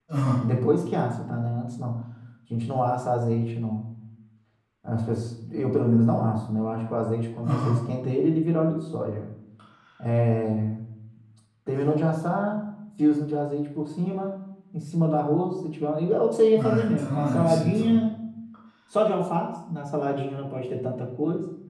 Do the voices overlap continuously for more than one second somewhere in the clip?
Yes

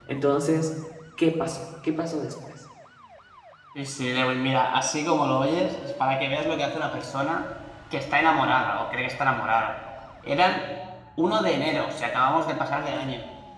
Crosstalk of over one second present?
No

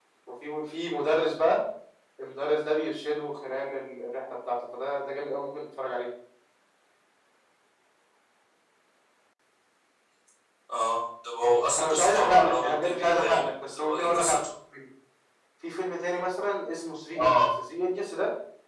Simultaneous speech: Yes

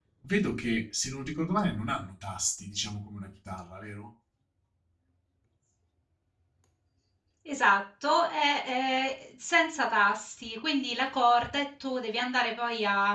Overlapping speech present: No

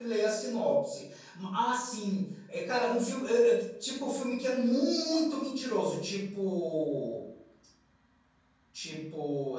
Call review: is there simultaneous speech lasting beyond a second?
No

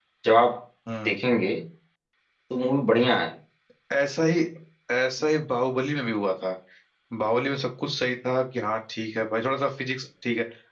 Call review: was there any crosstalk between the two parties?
No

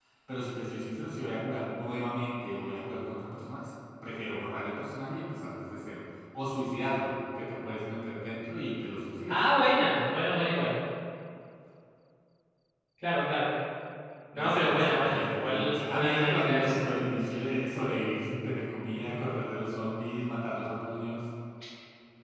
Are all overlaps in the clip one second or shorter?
No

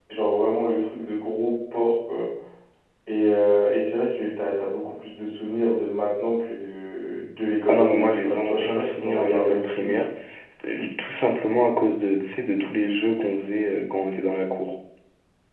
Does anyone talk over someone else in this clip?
Yes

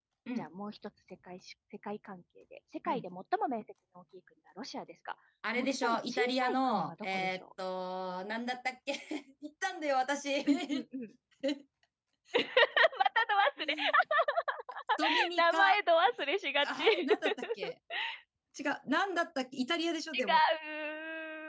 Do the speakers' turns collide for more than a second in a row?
Yes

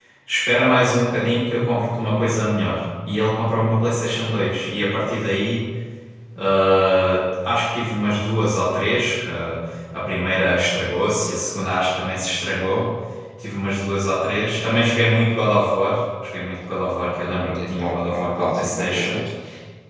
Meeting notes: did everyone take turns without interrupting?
No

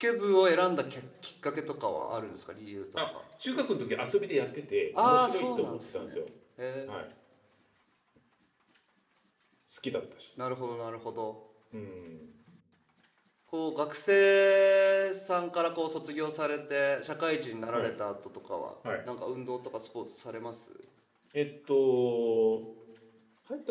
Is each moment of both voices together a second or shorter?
No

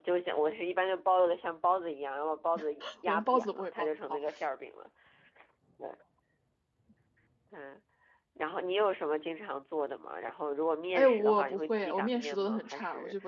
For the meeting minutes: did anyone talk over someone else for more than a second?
Yes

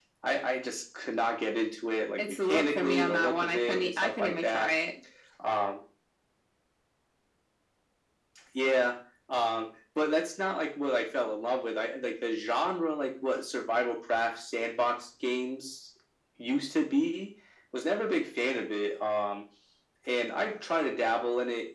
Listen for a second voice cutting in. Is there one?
Yes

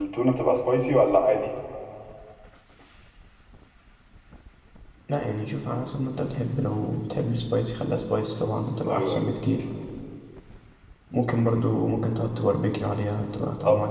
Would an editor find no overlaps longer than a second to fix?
Yes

